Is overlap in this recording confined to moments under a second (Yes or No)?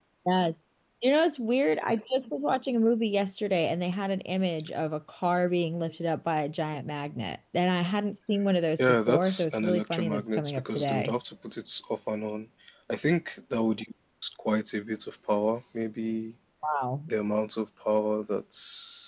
No